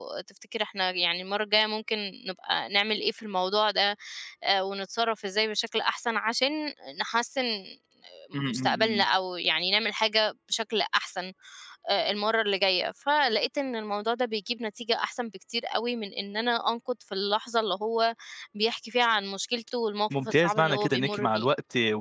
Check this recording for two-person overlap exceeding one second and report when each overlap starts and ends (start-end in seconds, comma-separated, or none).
20.2-21.5